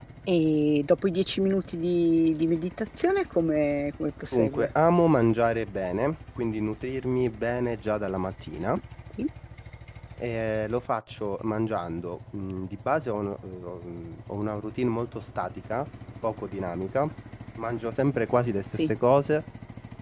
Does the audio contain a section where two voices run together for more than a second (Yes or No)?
No